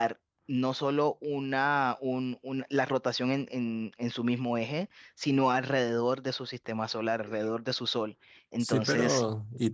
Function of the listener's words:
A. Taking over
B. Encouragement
A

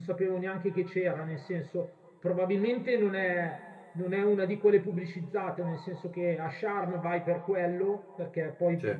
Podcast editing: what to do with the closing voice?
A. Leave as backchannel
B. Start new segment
A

